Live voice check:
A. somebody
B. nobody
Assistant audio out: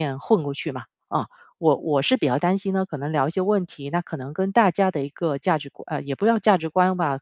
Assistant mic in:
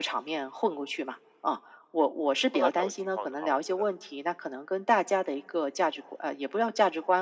A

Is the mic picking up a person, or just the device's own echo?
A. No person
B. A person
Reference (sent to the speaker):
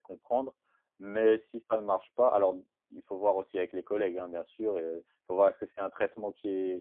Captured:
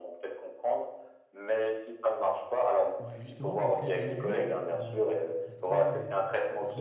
B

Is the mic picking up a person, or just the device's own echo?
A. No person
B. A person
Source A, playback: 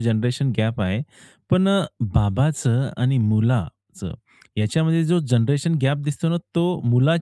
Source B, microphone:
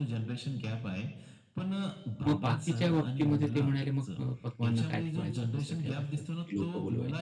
B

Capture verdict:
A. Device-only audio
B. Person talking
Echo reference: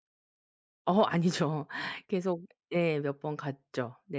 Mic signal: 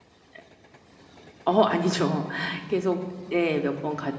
A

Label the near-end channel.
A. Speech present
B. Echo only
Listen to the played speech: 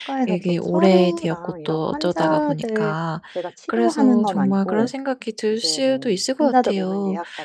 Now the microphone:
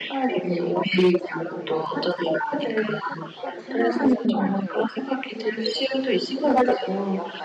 A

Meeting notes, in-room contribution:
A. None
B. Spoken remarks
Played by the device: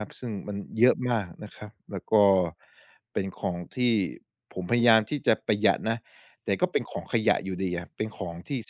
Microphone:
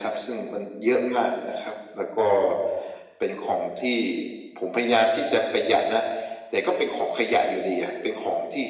A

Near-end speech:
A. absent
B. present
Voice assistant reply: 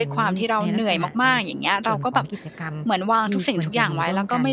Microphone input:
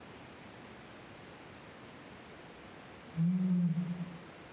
B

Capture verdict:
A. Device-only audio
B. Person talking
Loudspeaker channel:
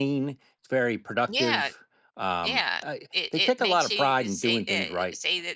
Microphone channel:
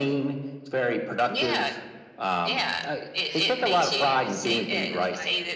B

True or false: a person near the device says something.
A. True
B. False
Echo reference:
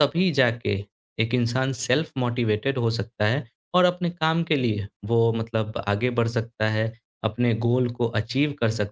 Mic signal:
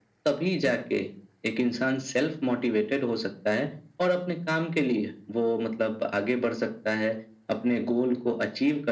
B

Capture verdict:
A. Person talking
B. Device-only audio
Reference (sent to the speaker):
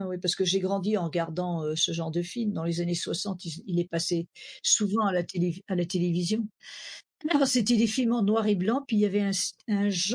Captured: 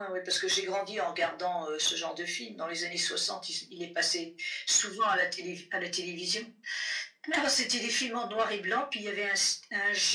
B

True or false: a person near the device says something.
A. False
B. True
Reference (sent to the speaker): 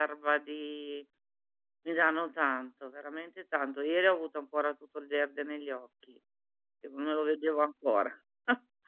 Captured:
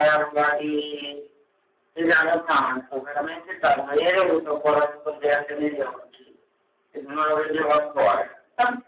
A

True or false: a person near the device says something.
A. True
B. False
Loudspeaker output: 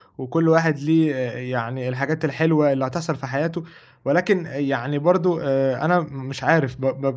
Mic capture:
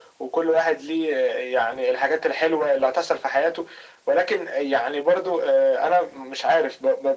B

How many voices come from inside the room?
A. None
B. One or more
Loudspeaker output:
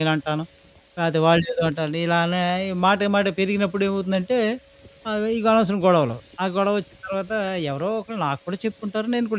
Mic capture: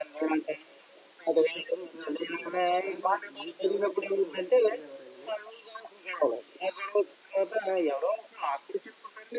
B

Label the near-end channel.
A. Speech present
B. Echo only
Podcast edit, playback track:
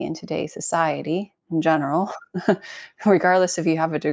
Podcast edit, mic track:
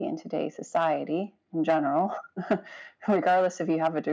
B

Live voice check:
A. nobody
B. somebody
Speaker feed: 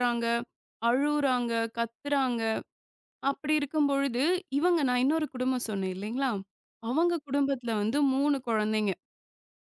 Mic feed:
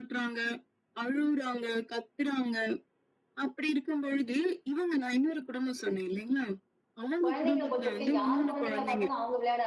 B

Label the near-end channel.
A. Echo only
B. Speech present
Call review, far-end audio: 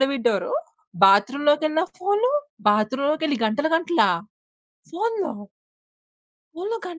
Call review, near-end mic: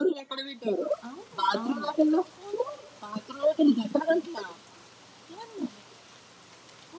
B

